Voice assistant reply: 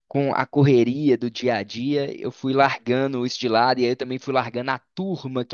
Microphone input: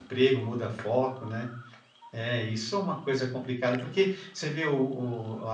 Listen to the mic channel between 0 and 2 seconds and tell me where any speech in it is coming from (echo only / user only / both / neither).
user only